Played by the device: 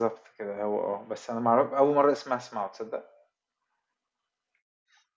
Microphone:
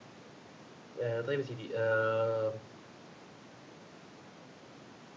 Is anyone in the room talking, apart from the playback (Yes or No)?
Yes